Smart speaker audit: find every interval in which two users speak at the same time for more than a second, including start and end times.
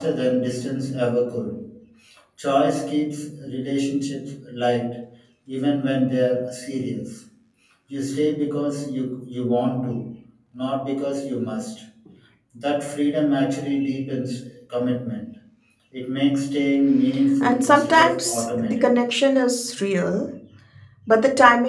17.4-19.0

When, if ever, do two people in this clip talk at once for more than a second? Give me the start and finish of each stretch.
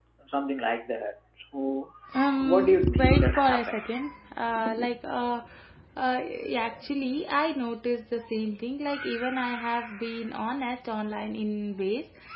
2.4-4.0

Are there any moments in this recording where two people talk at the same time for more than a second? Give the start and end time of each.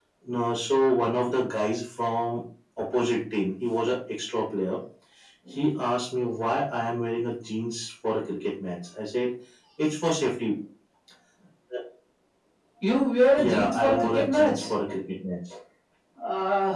13.4-14.7

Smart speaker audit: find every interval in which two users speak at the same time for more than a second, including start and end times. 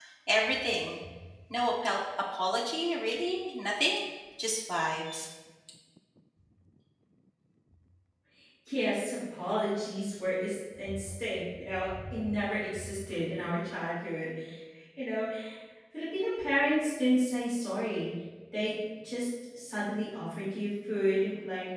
none

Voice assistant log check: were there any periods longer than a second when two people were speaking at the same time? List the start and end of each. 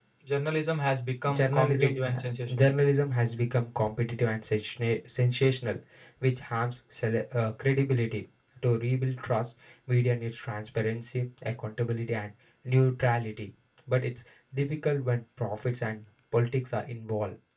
1.4-2.6

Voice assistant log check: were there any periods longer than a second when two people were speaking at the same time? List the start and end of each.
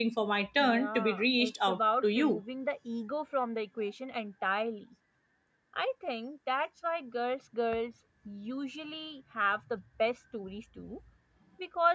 0.6-2.4

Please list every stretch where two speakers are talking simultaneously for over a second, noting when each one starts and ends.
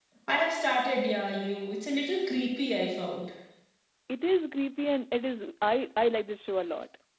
none

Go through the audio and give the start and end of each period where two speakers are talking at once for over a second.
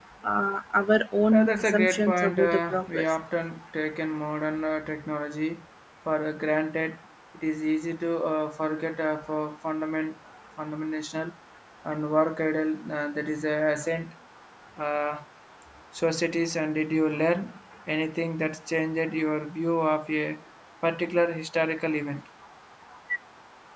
1.3-3.0

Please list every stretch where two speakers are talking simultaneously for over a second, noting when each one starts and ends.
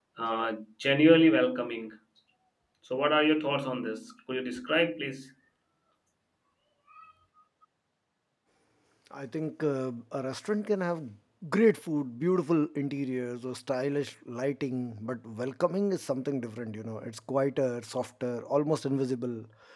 none

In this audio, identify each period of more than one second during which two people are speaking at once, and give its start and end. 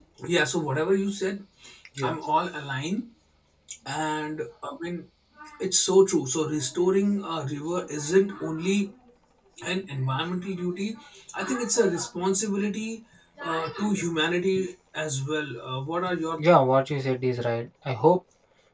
none

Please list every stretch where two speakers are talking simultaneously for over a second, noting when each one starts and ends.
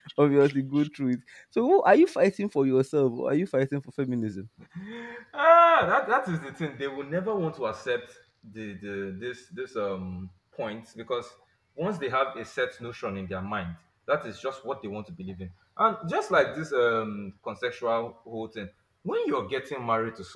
none

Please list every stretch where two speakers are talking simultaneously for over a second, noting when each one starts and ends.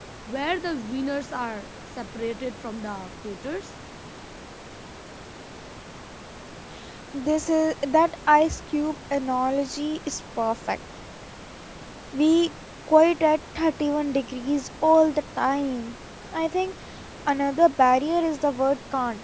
none

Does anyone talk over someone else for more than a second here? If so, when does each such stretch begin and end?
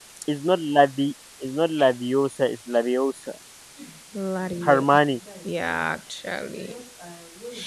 none

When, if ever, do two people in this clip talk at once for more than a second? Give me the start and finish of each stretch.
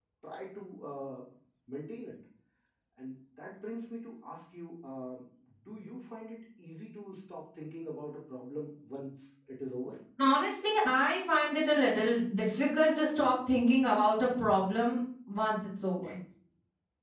none

